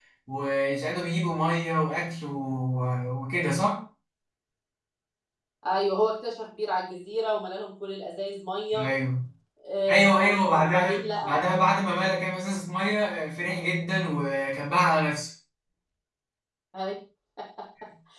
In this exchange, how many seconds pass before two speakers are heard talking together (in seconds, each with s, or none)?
9.9 s